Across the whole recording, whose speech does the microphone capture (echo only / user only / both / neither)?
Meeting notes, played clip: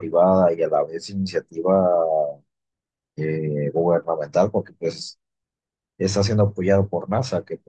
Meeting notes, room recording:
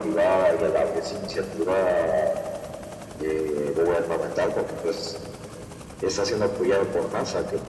echo only